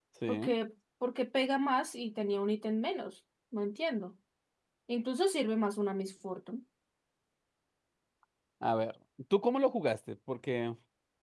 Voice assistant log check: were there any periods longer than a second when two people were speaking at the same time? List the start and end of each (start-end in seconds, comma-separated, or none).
none